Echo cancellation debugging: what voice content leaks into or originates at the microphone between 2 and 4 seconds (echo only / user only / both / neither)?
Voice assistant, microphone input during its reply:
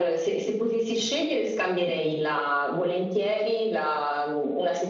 echo only